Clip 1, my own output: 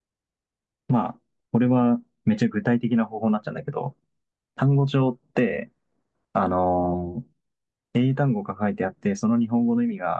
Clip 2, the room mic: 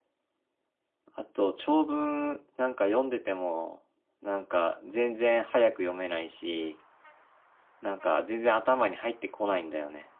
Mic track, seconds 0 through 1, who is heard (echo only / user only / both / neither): neither